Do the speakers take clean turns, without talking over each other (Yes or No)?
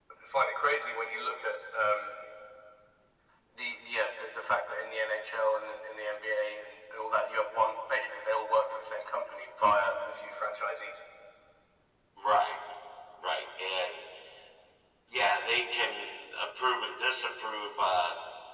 Yes